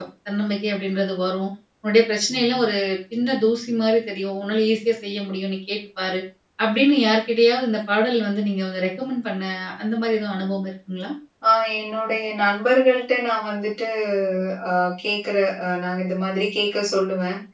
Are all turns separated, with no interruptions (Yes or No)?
Yes